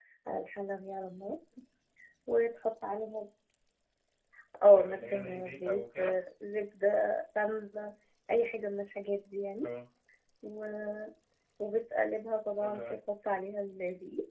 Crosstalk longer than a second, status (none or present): present